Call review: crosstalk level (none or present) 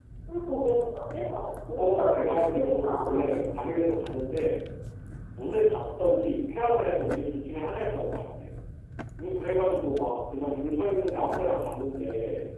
present